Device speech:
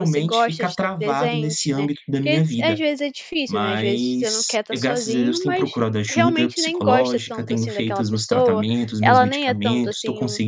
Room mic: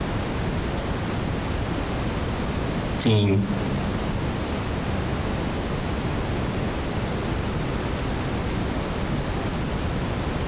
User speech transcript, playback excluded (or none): sim,